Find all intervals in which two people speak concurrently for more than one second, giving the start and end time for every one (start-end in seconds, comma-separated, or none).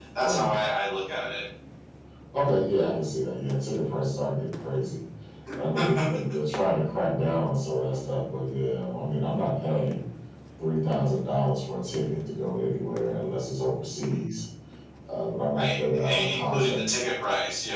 15.6-16.8